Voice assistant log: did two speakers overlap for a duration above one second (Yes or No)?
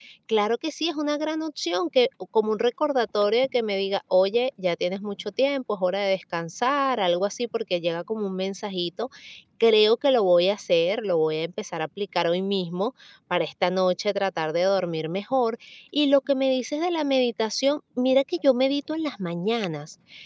No